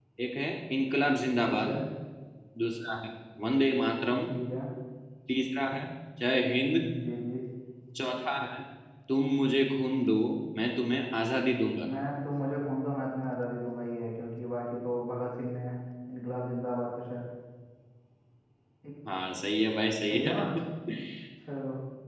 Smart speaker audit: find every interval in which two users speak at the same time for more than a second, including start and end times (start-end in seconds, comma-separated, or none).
none